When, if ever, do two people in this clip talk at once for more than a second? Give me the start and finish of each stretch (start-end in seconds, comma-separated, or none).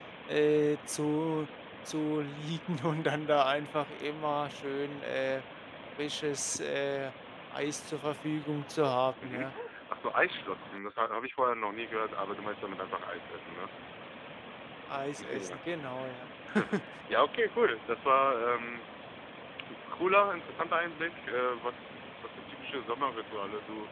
none